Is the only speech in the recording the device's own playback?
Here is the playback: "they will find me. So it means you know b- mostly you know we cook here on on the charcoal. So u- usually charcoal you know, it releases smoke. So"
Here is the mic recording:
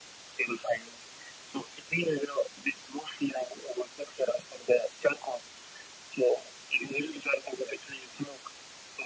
Yes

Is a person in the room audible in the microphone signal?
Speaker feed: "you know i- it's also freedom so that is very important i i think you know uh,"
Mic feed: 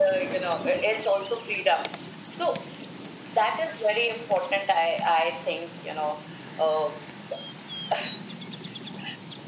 No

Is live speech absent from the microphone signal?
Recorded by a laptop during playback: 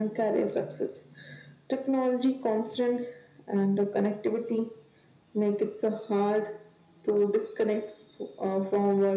Yes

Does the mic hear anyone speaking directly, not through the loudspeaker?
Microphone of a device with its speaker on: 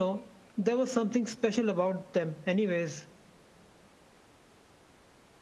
No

